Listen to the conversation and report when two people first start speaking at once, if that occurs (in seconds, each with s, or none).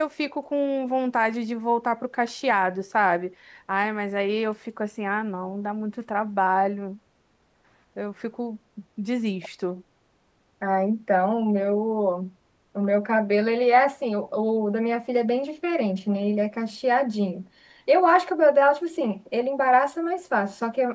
none